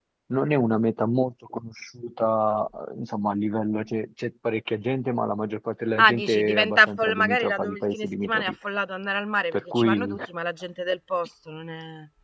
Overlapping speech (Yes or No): Yes